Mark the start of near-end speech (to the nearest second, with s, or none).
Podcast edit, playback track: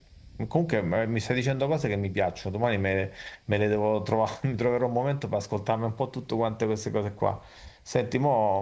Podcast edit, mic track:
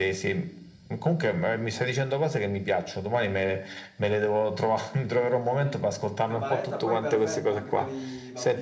5 s